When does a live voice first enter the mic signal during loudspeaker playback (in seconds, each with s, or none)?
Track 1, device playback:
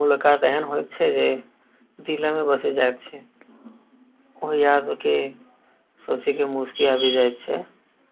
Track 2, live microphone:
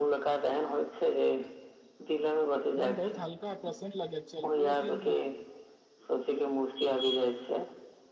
2.8 s